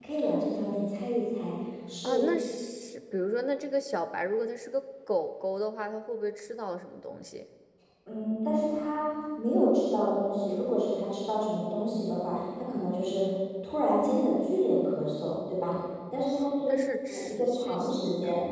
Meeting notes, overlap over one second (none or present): present